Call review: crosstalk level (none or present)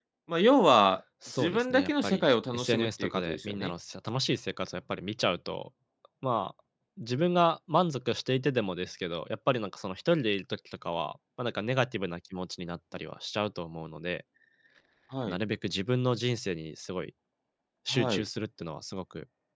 present